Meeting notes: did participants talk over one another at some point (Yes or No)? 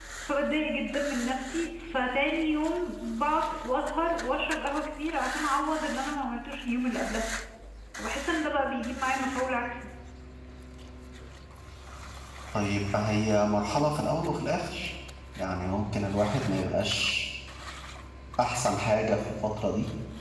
No